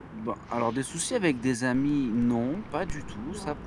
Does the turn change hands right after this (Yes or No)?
No